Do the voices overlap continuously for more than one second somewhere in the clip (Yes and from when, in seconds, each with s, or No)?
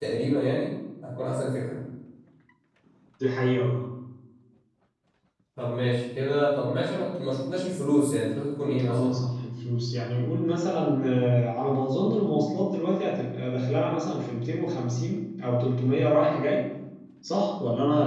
No